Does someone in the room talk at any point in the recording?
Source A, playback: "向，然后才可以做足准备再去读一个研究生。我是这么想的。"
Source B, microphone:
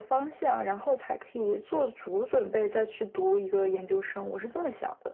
No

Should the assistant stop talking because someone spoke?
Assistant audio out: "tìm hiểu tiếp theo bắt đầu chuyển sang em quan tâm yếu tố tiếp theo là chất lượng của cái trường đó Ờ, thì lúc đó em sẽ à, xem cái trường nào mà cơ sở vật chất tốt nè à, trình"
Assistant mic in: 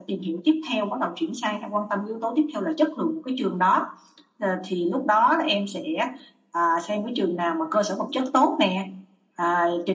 No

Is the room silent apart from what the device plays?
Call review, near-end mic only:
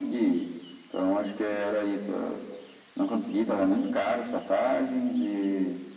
Yes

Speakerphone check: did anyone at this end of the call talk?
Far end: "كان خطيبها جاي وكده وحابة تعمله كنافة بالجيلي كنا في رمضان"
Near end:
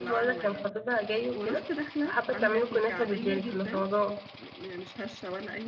Yes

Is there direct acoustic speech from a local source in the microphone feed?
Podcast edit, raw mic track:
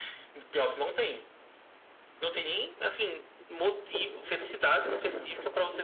No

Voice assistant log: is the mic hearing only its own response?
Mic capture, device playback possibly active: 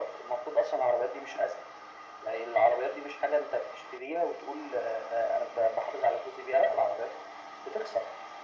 Yes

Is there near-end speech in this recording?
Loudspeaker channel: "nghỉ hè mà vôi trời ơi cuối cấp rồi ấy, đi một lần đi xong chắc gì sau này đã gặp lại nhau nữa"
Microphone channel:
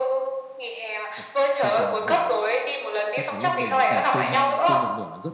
Yes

